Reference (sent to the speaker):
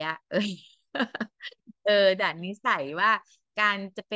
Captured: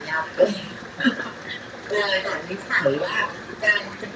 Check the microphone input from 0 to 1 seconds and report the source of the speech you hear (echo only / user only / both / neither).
echo only